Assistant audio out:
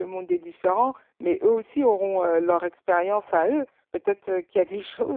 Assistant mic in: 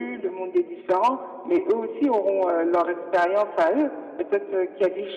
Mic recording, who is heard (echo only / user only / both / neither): echo only